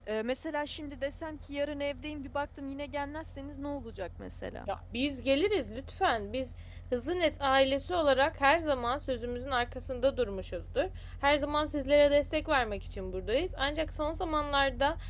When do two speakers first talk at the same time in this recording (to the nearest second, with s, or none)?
none